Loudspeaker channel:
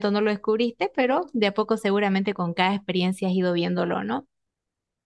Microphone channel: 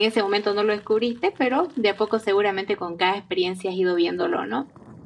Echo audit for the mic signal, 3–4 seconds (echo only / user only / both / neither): echo only